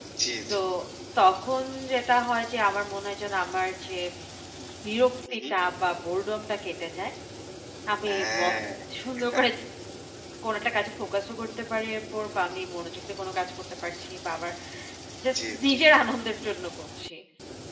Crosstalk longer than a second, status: none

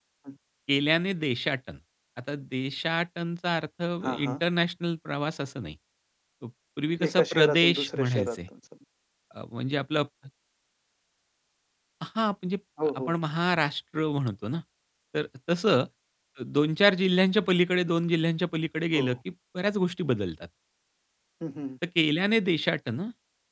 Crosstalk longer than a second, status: present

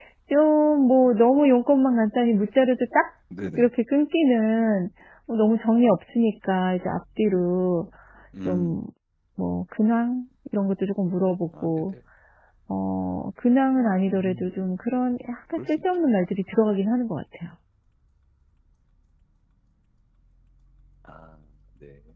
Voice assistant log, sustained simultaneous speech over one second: none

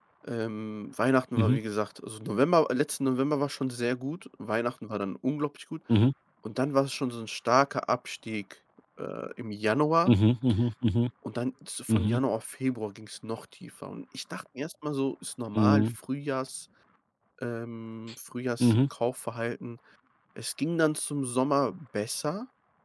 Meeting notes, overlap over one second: none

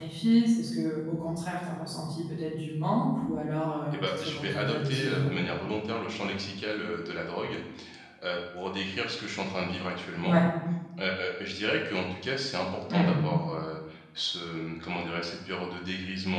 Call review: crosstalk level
present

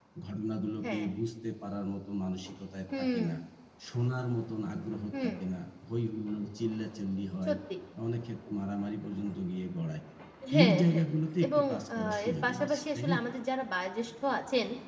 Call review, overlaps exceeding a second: present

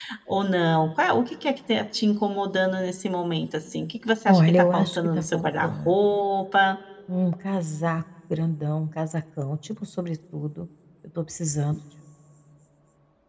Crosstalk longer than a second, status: present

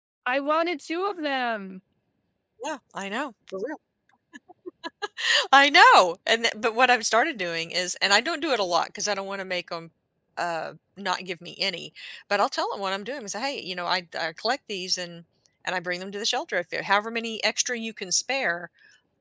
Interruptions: none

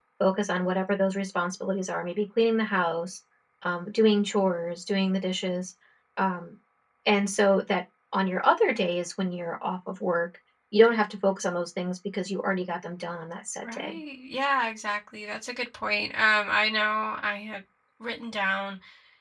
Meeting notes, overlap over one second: none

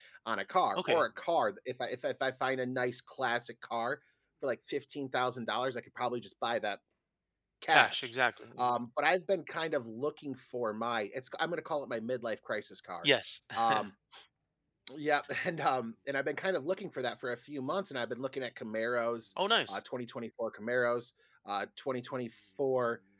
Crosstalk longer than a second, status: none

